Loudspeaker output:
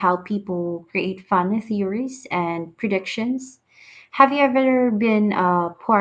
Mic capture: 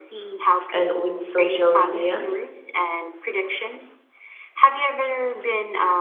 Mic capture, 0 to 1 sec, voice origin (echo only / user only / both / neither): both